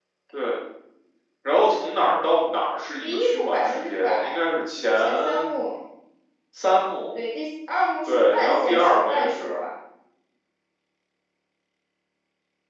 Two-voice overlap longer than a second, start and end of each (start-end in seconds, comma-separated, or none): 3.0-4.4, 8.1-9.6